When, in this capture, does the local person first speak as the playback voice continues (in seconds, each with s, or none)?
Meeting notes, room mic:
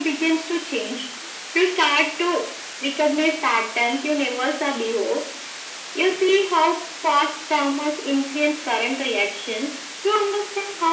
none